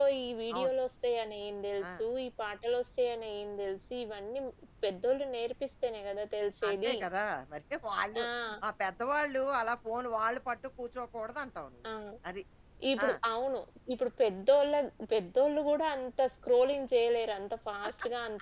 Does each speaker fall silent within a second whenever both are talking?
Yes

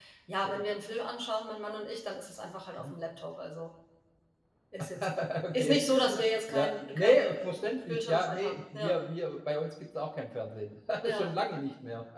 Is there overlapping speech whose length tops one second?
Yes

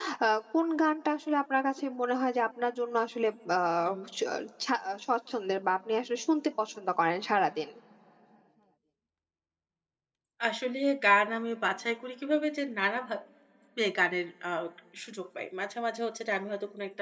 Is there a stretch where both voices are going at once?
No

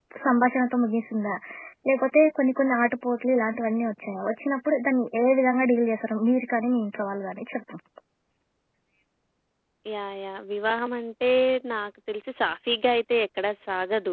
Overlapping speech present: No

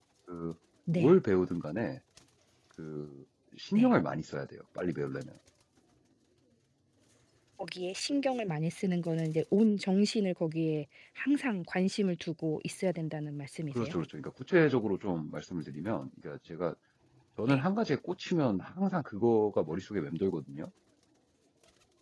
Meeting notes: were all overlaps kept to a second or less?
Yes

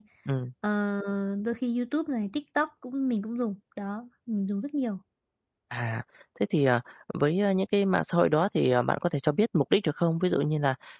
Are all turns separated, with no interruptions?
Yes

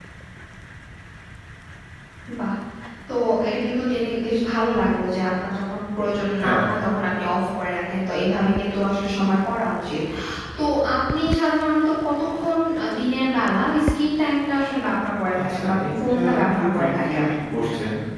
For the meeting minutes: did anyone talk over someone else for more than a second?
Yes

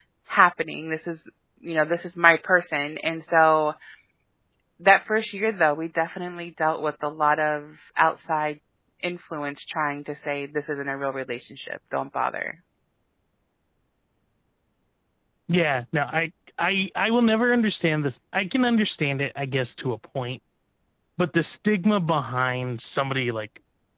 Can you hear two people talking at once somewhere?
No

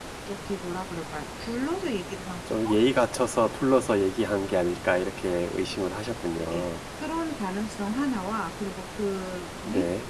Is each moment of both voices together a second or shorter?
Yes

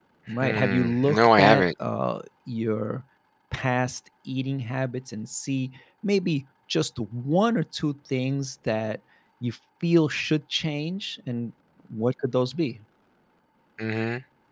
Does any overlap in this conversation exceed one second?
Yes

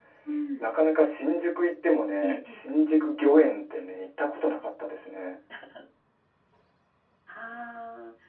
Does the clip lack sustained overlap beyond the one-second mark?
Yes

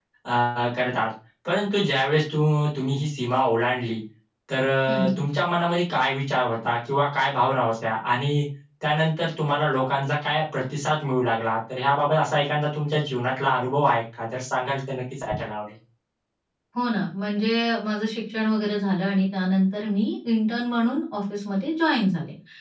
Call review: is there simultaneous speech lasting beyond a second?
No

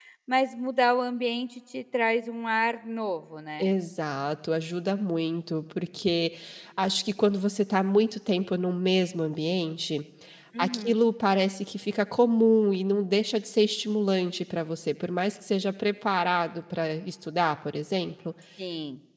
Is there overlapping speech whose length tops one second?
No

